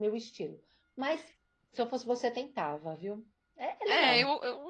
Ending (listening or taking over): taking over